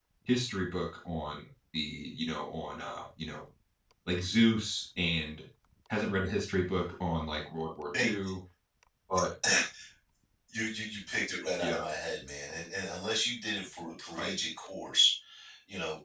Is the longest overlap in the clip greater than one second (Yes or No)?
No